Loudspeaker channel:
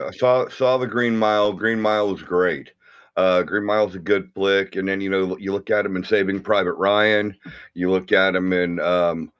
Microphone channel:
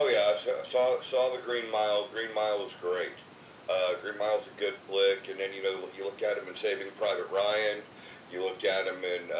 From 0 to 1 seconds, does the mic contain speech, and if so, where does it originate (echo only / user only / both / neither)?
echo only